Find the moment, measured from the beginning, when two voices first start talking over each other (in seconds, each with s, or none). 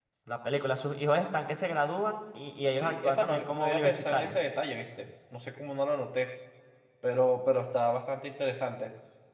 2.8 s